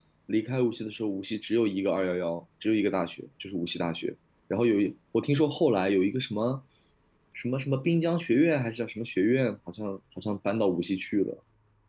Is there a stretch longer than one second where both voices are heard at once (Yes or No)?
No